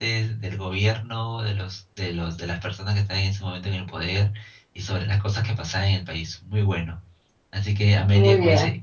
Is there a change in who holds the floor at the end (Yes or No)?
No